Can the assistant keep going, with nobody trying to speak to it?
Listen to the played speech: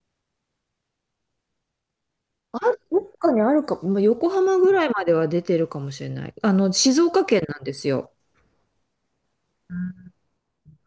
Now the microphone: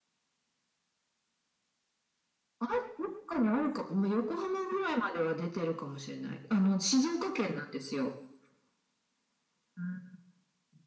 Yes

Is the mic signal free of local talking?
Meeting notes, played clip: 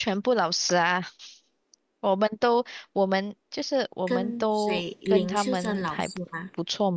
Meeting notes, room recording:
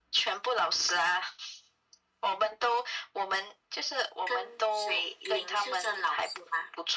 Yes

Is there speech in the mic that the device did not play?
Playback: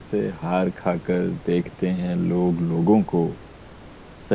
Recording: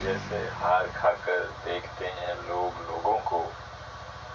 No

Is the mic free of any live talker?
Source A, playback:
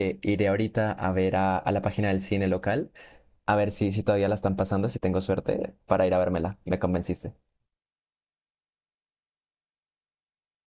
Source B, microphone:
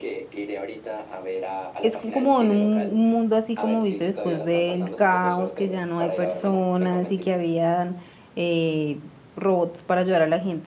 No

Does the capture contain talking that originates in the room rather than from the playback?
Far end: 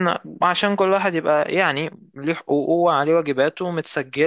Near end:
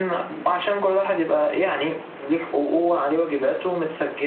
No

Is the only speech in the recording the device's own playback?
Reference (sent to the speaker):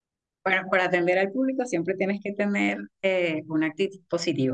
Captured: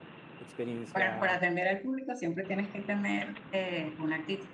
No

